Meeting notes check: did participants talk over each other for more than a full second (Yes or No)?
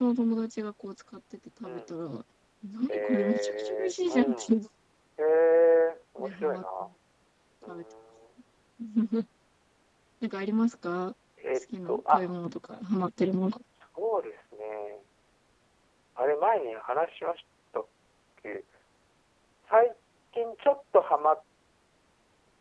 Yes